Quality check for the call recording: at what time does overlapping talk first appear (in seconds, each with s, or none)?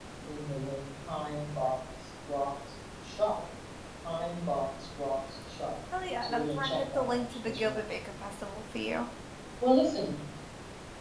6.2 s